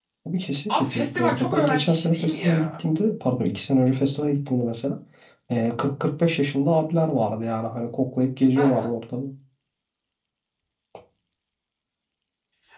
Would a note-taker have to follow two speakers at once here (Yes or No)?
Yes